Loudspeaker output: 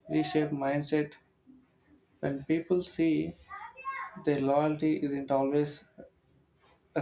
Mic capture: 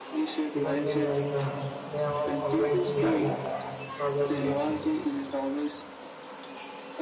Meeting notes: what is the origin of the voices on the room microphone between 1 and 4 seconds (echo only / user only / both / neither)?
both